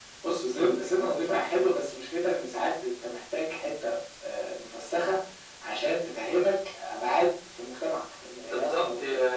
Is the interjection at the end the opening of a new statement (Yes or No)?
Yes